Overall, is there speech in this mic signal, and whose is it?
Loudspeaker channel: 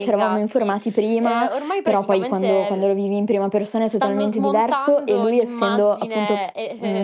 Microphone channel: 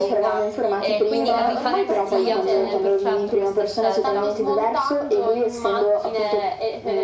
both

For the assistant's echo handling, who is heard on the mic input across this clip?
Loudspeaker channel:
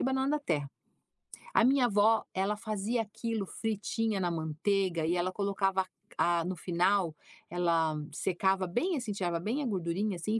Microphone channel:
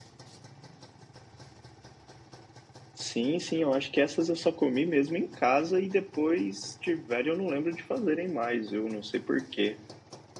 user only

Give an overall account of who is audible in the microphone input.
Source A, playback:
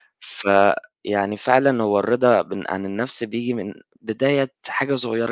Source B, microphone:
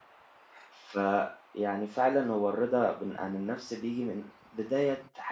echo only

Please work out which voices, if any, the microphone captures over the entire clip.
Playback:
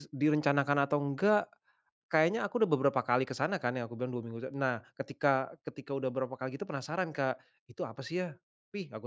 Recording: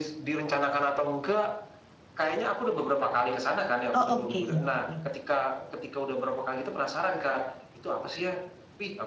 both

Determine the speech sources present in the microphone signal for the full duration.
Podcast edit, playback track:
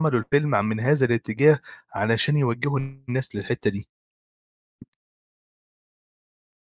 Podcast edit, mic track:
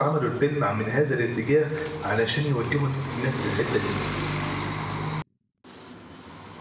echo only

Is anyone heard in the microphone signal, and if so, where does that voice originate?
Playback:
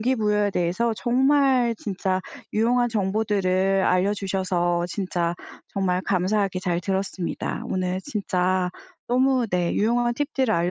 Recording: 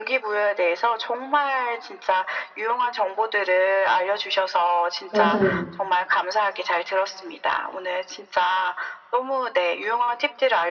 both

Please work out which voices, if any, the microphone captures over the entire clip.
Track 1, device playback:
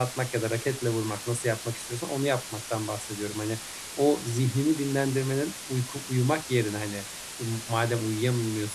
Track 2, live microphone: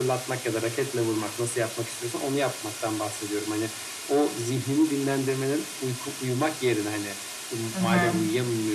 both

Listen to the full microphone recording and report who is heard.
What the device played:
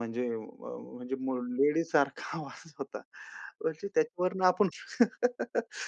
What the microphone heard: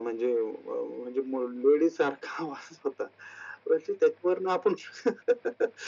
echo only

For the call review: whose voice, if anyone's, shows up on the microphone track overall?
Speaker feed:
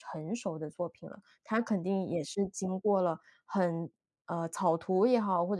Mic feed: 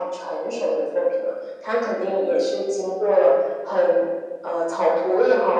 echo only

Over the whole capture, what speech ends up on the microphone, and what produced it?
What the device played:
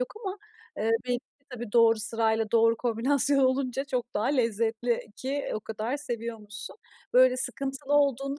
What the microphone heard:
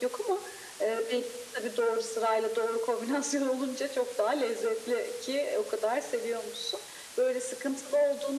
echo only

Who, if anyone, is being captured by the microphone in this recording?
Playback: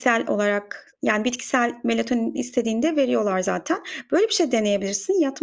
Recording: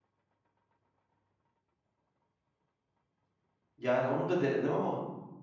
user only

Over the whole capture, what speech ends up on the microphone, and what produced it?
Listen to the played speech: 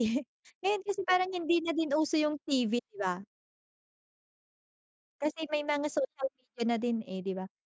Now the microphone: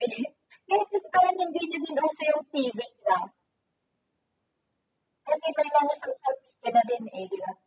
echo only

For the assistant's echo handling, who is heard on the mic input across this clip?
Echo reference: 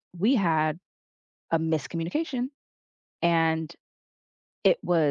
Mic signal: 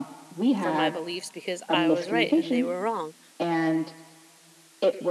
both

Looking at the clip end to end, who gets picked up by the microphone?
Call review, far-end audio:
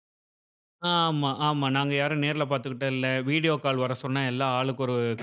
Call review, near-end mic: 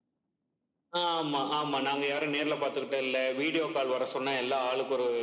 echo only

